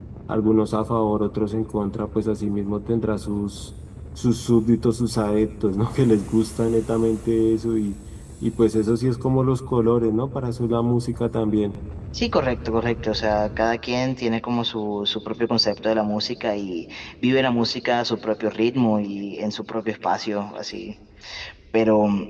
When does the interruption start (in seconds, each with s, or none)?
none